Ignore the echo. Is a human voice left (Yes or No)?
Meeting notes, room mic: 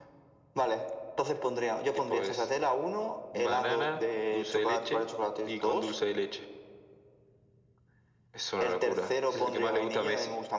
No